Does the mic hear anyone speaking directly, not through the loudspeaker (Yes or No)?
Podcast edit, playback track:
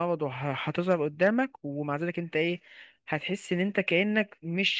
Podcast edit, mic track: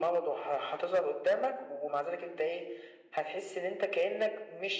No